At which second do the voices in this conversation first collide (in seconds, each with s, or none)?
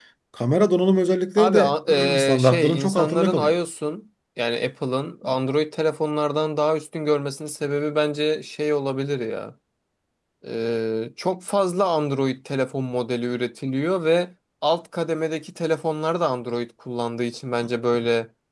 1.4 s